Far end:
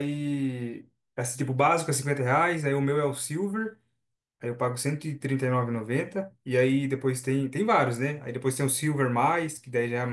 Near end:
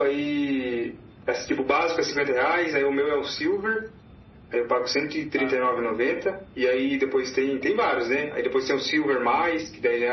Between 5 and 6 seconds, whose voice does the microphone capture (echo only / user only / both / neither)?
both